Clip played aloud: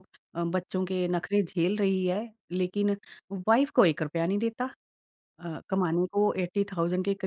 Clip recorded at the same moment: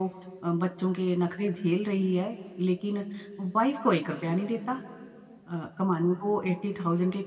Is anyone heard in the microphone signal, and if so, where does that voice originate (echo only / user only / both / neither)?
echo only